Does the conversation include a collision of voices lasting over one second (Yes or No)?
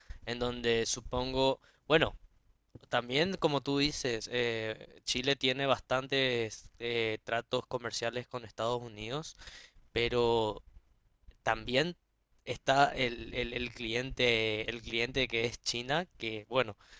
No